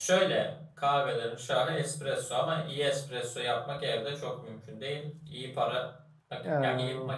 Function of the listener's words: listening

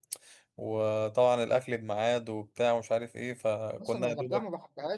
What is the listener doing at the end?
taking over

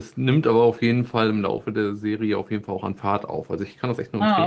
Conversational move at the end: taking over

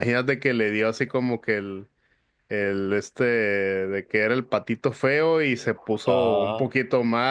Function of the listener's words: listening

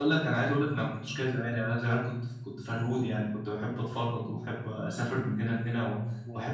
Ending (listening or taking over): listening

